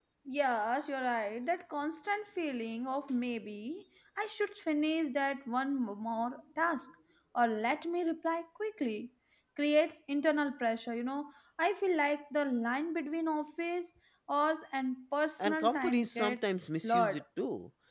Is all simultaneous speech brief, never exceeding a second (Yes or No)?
No